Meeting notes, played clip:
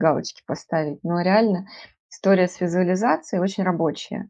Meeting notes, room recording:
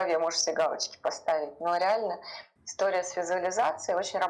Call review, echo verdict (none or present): present